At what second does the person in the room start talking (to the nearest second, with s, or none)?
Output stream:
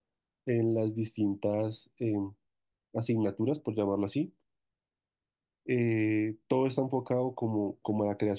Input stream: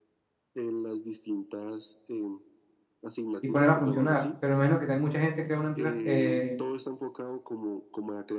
3 s